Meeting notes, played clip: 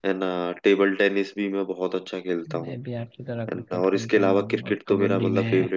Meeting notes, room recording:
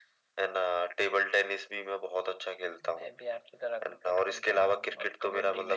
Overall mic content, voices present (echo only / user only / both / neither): echo only